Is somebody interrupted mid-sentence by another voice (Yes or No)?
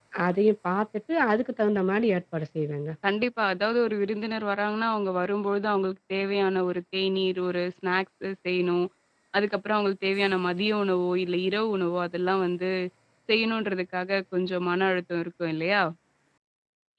No